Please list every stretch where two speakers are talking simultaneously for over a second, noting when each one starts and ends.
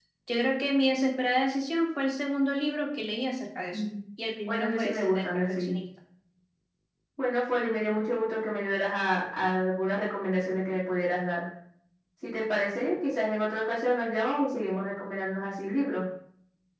4.5-5.8

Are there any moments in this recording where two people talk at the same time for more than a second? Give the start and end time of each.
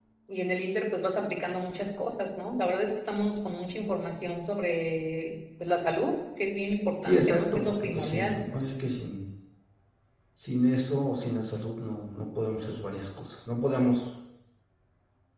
7.0-8.4

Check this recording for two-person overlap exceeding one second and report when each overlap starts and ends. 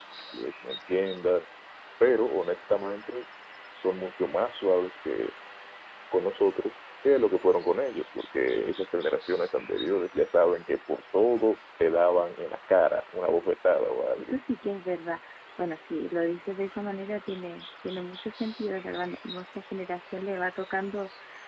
none

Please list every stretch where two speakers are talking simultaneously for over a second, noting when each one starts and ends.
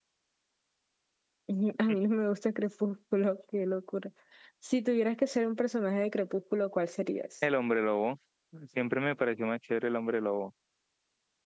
none

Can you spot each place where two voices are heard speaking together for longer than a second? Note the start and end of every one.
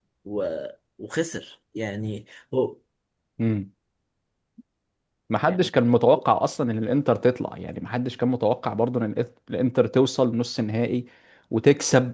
none

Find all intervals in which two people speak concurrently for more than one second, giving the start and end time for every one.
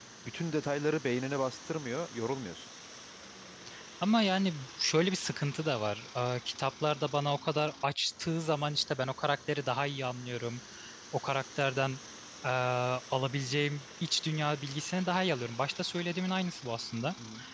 none

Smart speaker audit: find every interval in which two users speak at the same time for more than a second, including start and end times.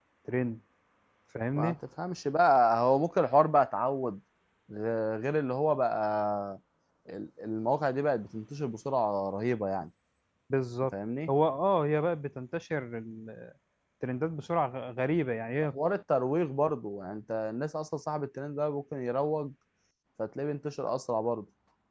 none

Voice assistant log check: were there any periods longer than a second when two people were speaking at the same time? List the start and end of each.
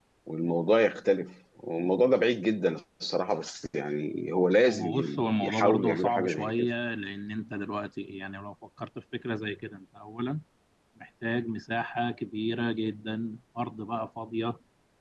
4.7-6.7

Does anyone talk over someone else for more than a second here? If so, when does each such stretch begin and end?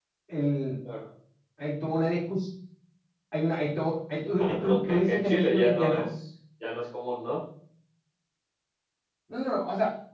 4.5-6.0

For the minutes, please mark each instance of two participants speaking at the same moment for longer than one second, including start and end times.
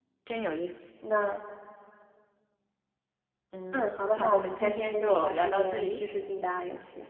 3.7-6.0

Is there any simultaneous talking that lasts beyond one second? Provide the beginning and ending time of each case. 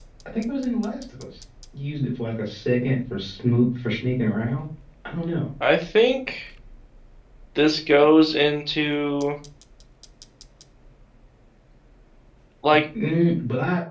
none

